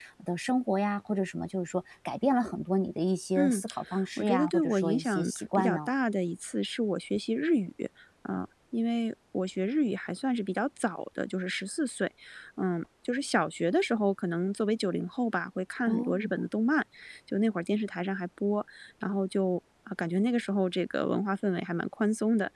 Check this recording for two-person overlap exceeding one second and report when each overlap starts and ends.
4.2-5.9

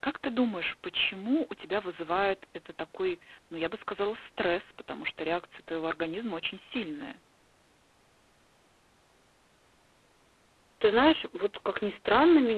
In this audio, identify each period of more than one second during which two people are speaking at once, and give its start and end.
none

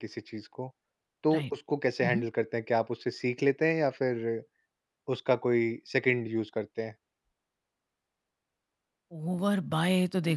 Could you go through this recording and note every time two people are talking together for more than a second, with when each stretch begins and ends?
none

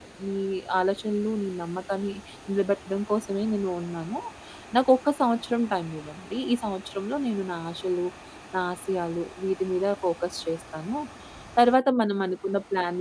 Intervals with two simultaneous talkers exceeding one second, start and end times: none

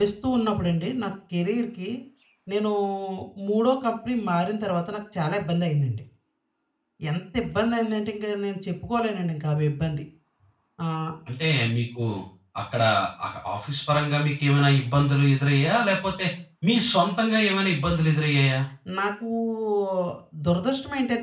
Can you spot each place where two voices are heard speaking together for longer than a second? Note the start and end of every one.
none

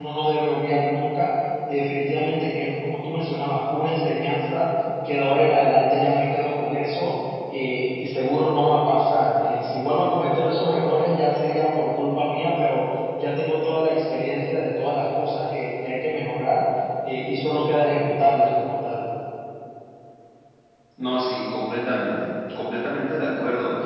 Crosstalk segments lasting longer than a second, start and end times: none

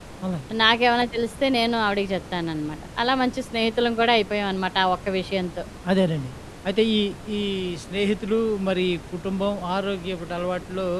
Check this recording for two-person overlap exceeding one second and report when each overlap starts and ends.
none

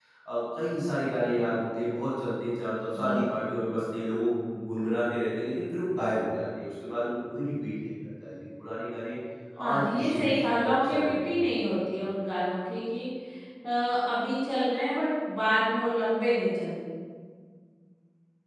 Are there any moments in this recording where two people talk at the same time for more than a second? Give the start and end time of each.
9.7-11.4

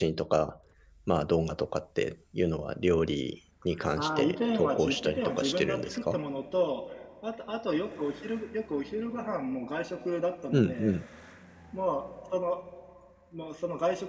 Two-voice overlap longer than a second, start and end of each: 4.0-6.2

